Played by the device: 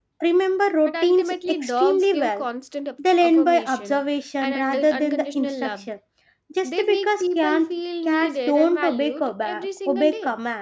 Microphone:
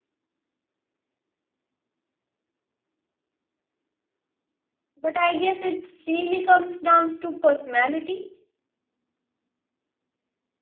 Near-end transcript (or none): But I guess it really comes down to personality.